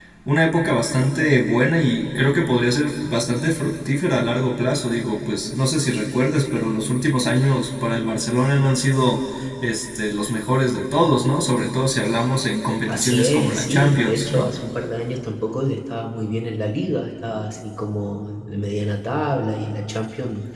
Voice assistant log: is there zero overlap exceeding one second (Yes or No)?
No